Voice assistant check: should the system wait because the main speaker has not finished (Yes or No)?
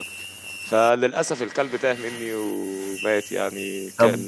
No